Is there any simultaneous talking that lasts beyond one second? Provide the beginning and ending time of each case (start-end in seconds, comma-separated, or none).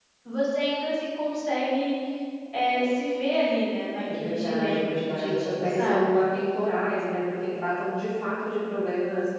4.0-6.1